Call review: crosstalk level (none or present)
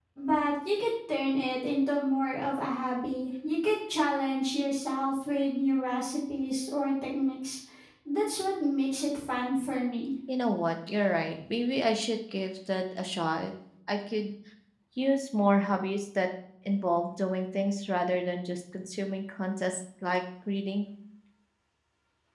none